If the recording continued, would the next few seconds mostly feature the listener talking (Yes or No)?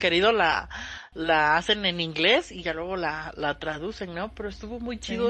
No